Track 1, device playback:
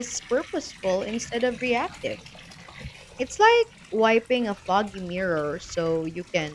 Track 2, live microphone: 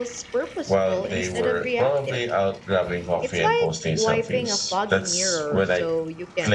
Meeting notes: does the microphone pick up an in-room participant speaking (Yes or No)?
Yes